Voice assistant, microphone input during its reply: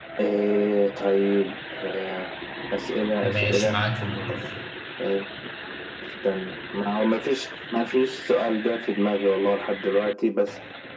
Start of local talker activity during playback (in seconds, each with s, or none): 3.2 s